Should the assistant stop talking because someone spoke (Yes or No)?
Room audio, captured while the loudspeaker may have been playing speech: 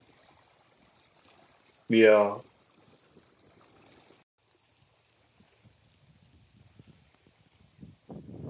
Yes